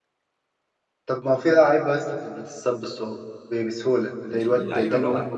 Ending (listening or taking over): taking over